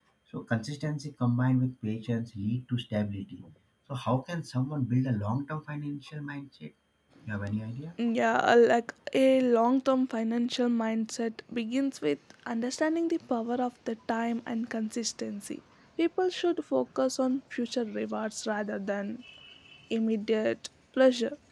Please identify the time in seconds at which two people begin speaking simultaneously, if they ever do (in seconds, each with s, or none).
none